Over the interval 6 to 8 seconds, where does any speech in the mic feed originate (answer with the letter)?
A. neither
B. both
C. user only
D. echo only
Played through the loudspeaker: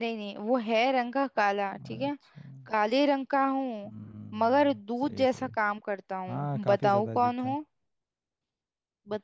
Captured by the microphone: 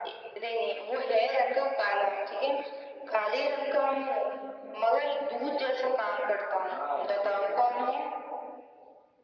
D